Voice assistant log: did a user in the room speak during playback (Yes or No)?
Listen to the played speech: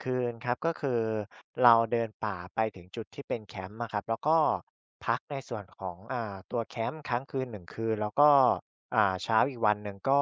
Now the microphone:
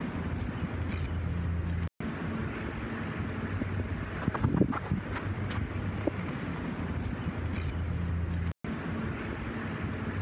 No